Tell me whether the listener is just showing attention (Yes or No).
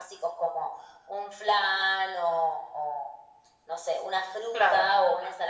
Yes